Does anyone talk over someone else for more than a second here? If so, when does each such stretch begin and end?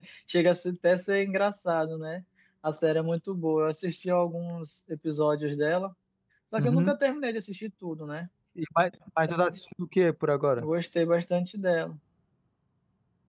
none

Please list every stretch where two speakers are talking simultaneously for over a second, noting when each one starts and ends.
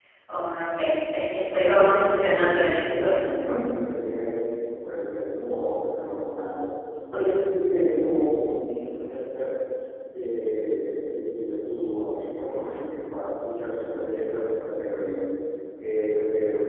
1.4-3.1

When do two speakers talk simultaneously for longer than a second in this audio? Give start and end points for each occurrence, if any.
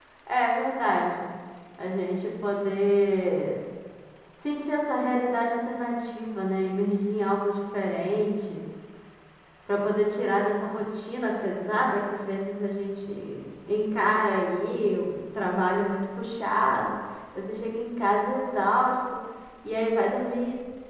none

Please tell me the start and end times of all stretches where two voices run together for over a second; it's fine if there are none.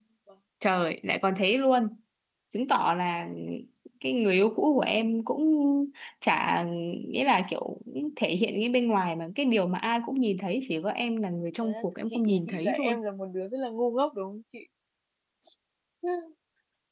11.6-13.0

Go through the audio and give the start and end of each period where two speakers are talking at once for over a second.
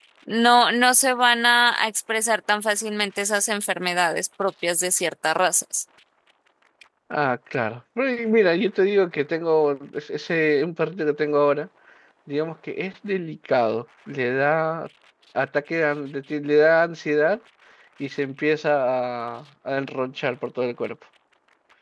none

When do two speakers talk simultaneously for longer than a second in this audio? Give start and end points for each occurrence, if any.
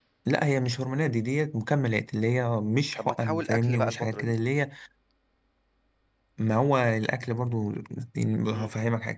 3.0-4.3

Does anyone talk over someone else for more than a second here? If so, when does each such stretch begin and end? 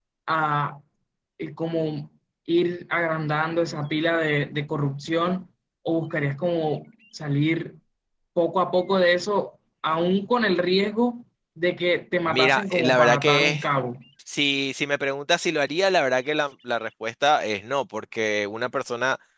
12.3-13.6

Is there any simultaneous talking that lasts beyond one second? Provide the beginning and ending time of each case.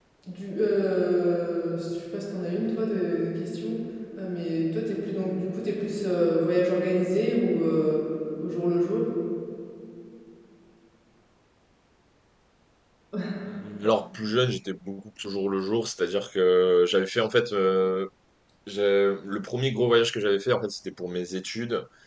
none

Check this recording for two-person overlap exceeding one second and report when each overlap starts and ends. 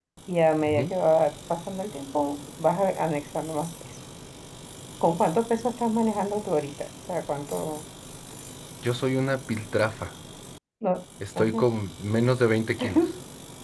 none

